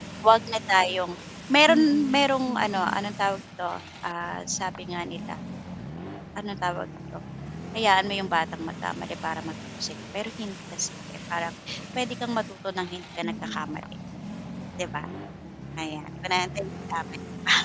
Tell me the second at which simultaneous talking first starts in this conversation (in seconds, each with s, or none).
1.7 s